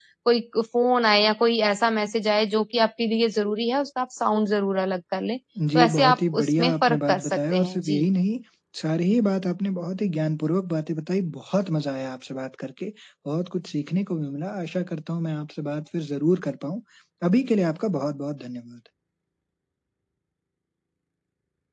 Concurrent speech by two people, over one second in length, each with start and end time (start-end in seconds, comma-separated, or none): 5.8-8.1